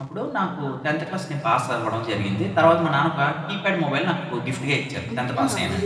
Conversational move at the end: taking over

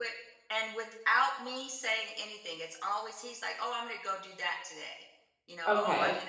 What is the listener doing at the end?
taking over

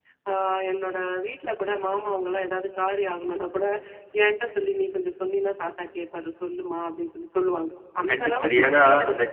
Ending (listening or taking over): taking over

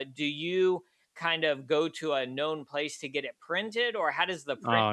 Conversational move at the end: taking over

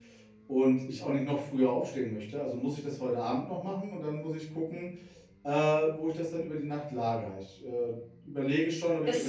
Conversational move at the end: taking over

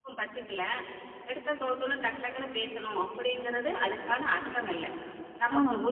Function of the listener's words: listening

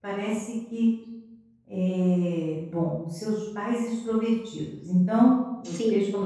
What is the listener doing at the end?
listening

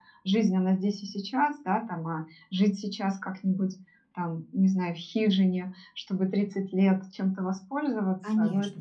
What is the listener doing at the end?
listening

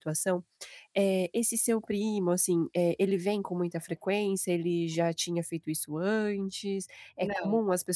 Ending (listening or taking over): listening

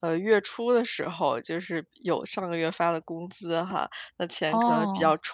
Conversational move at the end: listening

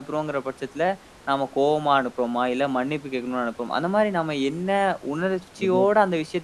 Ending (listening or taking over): listening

